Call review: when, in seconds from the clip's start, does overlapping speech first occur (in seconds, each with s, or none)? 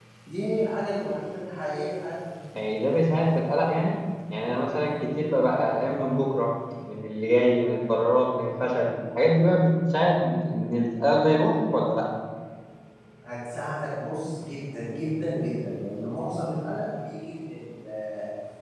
none